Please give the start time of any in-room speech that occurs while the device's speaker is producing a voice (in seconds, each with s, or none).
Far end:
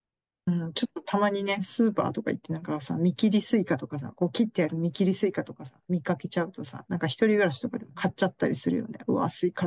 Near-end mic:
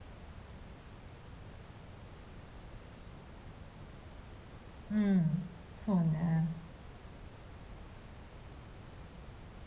4.9 s